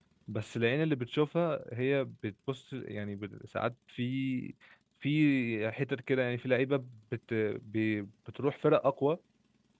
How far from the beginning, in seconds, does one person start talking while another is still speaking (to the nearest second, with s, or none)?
none